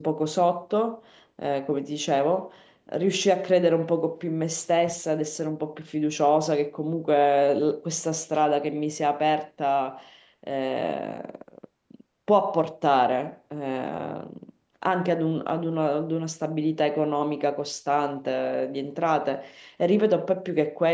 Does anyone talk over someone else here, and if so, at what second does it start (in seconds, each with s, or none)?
none